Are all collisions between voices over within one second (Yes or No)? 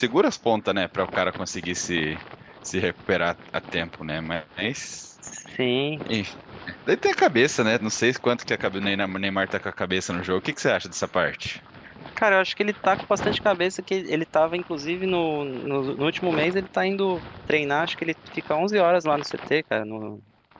Yes